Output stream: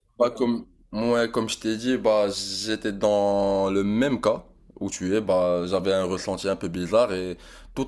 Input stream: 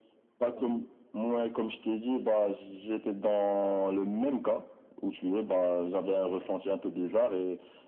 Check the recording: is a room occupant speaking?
No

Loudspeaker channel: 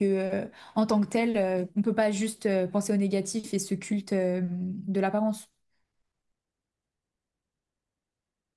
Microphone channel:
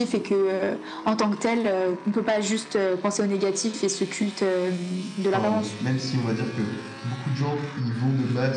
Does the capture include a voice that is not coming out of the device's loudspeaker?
Yes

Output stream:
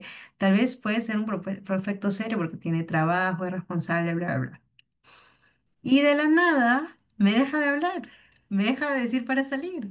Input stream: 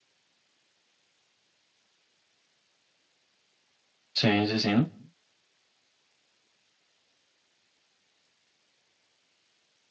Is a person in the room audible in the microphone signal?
Yes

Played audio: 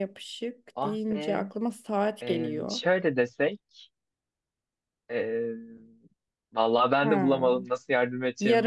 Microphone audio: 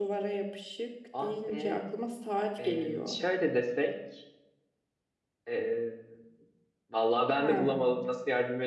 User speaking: No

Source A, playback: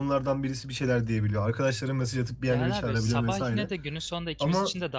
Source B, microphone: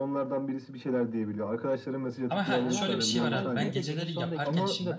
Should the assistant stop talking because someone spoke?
Yes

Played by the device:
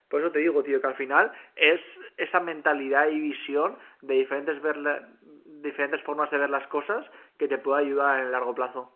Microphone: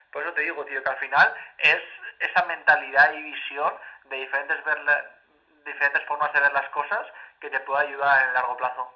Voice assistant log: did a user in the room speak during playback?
No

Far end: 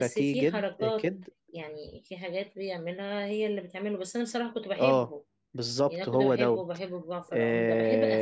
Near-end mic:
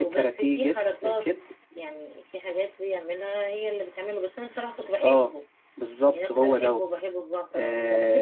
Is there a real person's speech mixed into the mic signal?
No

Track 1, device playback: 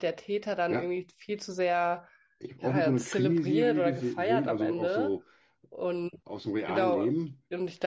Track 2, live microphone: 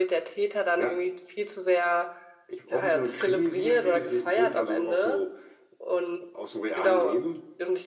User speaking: No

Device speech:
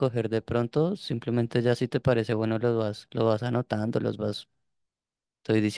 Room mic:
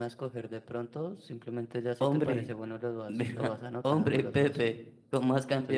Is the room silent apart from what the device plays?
No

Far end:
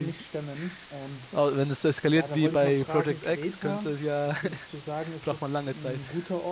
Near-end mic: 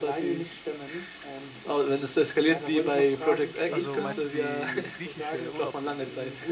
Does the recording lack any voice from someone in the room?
No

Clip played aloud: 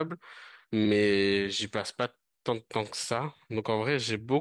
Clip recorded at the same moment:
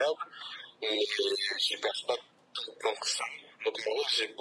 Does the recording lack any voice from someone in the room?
Yes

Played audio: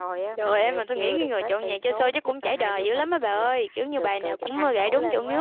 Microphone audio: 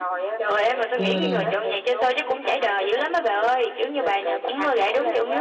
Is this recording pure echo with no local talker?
No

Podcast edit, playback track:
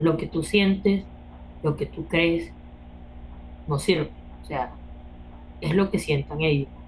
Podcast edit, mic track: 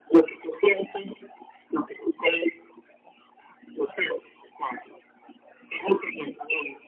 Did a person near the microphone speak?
No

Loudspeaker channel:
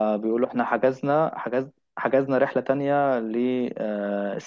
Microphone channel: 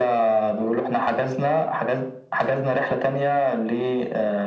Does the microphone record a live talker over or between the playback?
No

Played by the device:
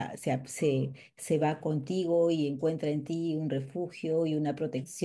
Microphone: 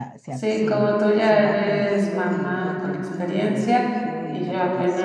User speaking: Yes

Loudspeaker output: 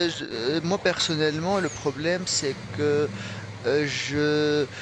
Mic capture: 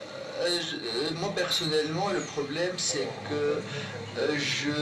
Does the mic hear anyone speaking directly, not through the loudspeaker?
Yes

